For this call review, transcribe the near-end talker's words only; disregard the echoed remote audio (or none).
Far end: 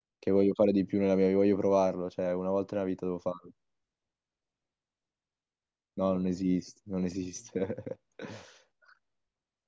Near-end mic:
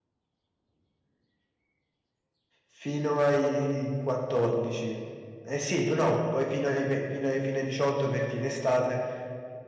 fino ai 14. Eh sì, p- no, poi fino ai, ve- fino ai, fino ai 18 perché in estate